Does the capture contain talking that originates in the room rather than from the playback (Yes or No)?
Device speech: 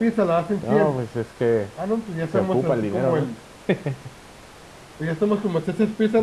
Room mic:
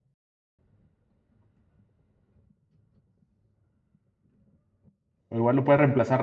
Yes